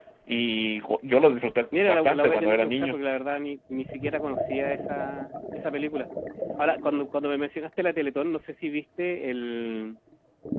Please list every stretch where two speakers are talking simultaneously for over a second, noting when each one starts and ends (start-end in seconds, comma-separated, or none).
1.7-3.0